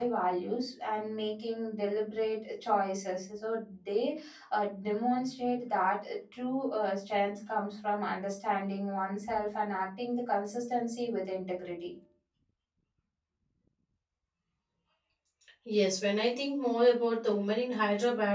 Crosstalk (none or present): none